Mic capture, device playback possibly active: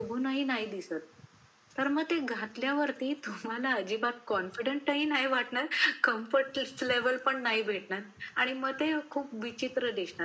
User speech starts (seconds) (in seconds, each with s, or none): none